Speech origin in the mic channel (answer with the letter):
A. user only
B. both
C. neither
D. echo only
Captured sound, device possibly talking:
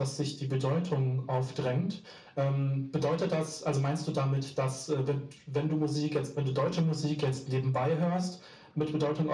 D